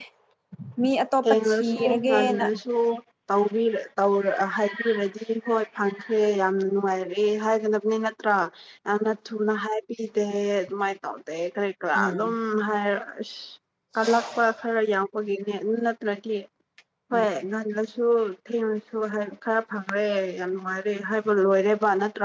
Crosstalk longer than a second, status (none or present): present